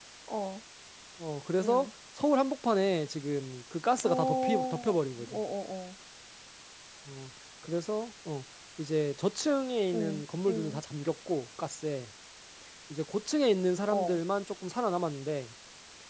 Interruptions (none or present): present